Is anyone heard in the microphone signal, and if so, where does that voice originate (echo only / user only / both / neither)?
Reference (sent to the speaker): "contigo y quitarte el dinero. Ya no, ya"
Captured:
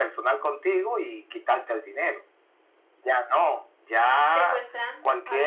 both